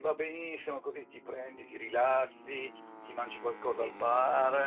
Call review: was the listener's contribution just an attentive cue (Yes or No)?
Yes